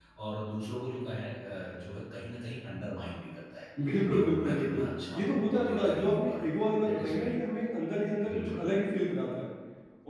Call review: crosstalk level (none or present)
present